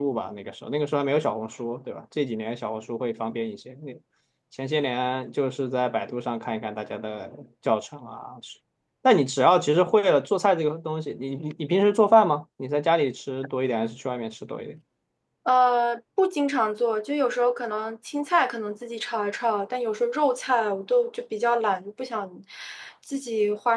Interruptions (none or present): none